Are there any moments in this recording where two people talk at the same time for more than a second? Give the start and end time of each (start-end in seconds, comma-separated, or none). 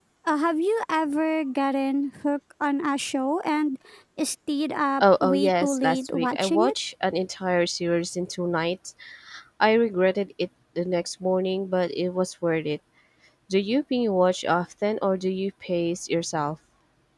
5.0-6.7